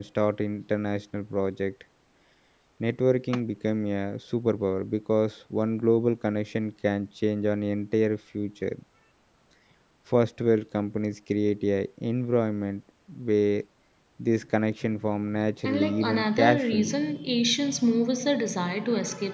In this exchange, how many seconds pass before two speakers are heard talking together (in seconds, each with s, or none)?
15.6 s